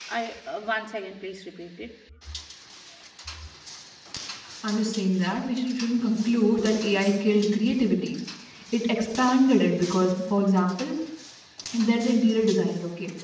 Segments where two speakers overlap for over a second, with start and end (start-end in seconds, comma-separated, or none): none